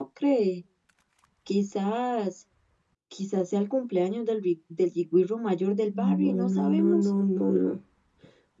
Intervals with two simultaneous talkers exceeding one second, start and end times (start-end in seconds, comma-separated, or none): 5.9-7.1